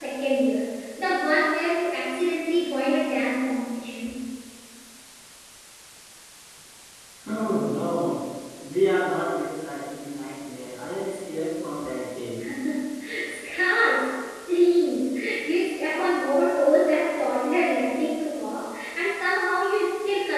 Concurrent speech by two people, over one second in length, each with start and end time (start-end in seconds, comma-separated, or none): none